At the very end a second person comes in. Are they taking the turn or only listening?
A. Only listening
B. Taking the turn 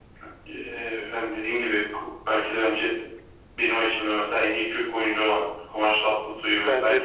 B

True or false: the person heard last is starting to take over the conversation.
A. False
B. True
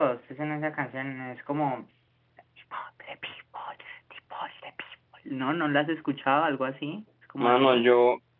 B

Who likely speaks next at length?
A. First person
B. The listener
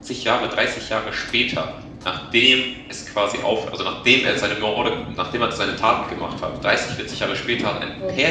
A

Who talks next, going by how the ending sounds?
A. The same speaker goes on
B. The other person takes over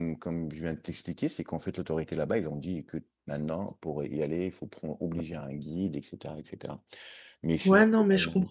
B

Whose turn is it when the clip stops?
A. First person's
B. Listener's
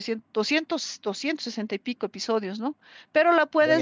A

